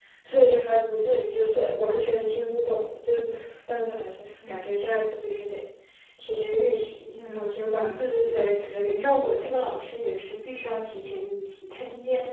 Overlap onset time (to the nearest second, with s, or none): 7 s